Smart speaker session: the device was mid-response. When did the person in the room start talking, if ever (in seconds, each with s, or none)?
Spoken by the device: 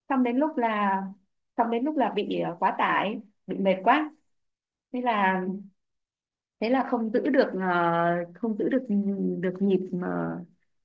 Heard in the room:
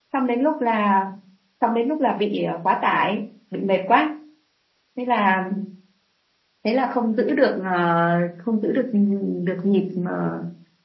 none